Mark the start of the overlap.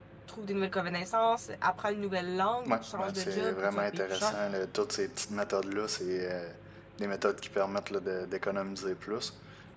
3 s

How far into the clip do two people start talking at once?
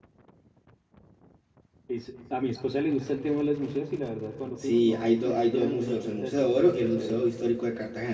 5 s

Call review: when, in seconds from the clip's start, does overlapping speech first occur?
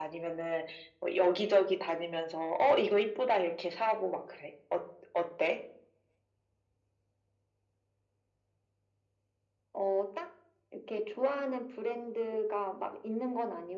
none

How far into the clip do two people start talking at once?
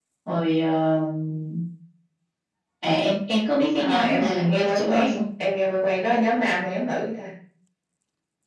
4 s

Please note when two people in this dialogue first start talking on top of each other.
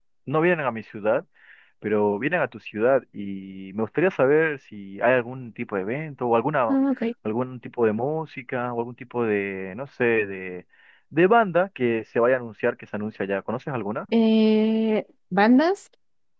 none

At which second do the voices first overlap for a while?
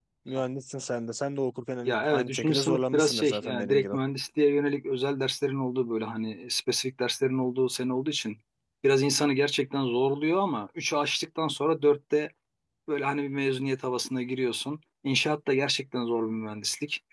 2 s

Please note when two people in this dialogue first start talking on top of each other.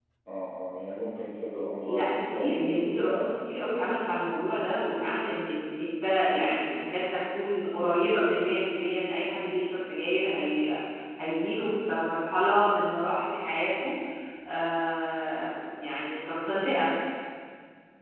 2 s

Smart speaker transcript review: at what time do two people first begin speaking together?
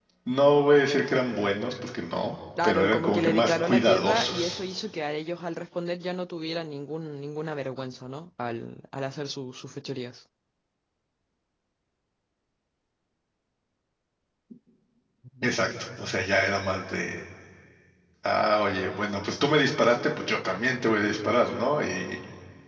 3 s

